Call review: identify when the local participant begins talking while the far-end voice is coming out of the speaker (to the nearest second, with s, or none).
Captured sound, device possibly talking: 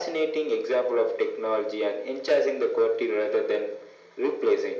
none